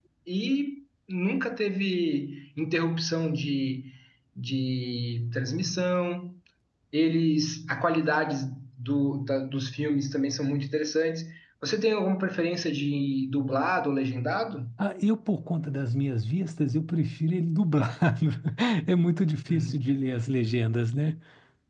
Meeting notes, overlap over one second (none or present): none